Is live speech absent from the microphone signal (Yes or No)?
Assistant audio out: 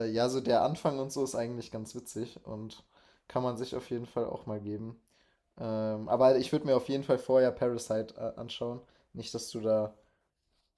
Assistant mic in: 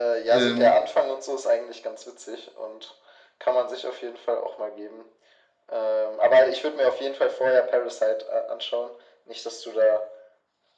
No